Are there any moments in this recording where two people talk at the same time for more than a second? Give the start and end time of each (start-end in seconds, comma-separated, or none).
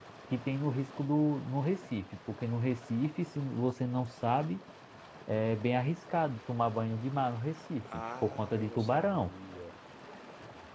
7.8-9.3